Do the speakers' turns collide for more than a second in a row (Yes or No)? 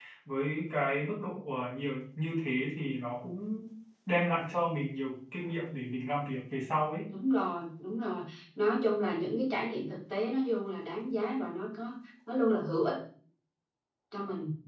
No